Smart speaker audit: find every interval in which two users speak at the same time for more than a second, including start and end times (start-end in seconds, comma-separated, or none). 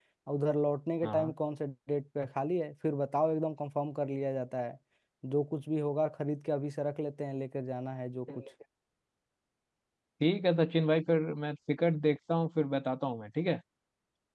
none